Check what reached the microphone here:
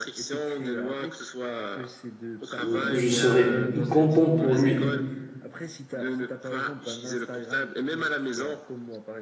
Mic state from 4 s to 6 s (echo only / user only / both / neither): both